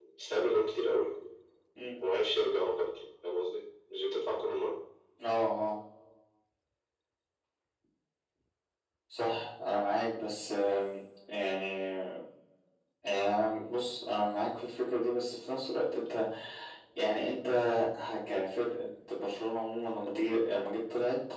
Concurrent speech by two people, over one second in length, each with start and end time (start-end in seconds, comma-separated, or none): none